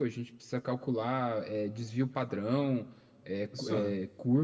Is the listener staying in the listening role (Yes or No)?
Yes